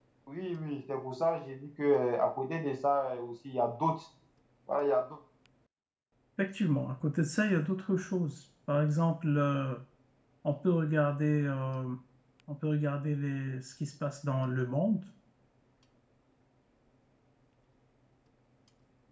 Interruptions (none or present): none